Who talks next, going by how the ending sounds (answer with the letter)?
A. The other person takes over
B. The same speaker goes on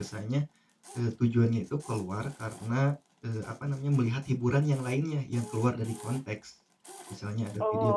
A